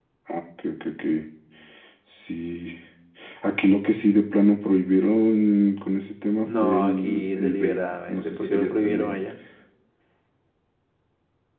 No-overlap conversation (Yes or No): No